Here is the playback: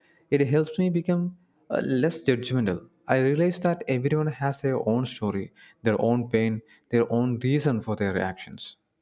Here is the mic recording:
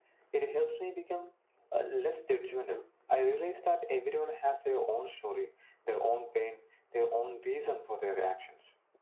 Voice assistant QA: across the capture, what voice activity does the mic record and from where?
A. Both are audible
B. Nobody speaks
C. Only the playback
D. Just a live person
C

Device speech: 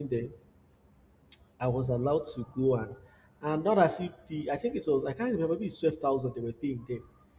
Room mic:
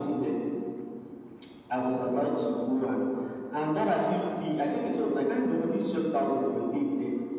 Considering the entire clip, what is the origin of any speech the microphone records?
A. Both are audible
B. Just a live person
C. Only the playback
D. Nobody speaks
C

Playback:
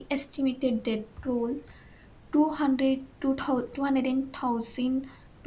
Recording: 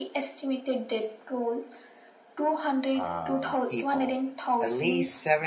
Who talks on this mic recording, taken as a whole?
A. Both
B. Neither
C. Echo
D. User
A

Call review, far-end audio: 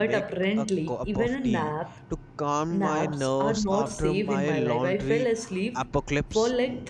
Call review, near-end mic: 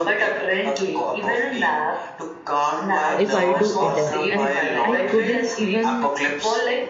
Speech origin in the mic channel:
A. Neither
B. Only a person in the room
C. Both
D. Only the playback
C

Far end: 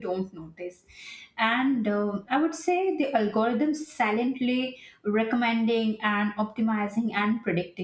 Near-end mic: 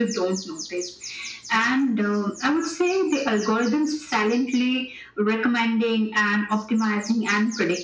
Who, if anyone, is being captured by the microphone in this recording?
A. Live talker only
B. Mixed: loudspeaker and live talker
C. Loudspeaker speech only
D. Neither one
C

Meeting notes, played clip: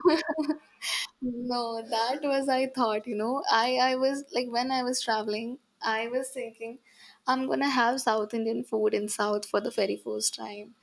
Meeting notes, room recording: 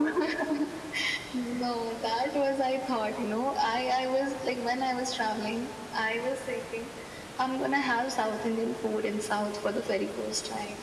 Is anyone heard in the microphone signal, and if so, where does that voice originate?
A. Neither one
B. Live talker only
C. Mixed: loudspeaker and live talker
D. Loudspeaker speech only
D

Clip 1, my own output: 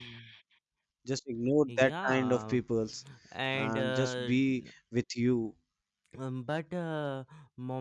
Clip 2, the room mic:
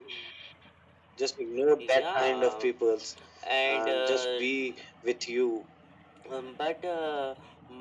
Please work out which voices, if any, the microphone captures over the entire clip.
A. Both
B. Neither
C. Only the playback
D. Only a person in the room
C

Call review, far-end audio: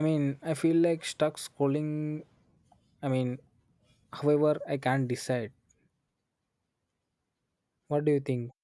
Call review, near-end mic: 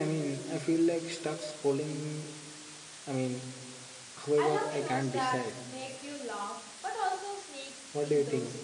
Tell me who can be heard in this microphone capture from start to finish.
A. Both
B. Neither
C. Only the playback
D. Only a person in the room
A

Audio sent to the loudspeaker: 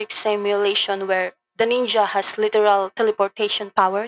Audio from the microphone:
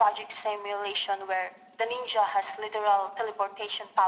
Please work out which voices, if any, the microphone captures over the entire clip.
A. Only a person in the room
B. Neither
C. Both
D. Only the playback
D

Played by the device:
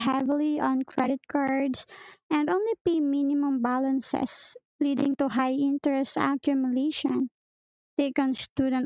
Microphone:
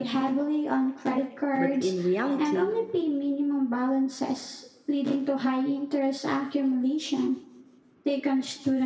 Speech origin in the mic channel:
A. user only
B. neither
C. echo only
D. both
D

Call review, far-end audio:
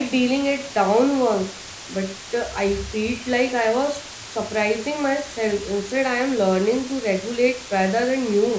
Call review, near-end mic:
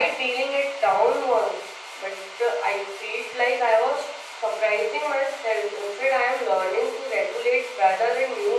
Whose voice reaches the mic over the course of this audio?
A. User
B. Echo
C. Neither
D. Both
B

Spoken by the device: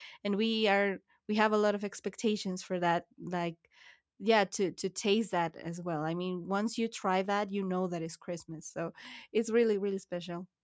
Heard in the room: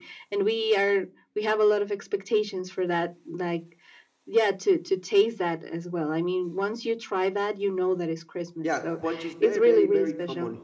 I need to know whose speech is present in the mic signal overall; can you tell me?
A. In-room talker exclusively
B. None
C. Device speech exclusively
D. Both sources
D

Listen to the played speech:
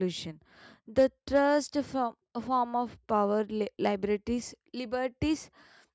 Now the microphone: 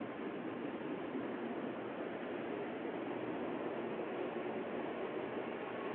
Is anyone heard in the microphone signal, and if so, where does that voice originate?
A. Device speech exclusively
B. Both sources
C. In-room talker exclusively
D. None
D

